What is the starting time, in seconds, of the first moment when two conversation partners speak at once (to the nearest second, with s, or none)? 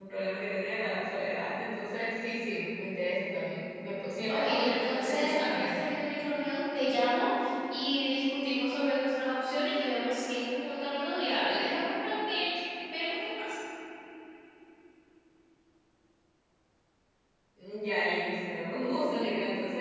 4 s